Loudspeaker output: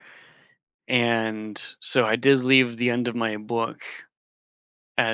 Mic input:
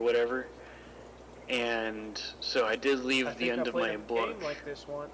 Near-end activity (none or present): present